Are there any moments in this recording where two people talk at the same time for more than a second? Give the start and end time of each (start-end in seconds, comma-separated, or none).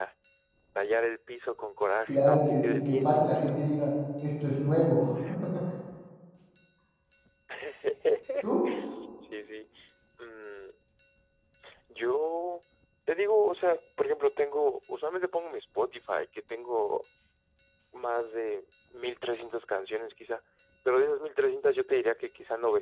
2.1-3.5